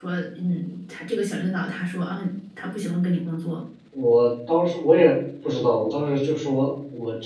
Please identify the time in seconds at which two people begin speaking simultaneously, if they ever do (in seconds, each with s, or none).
none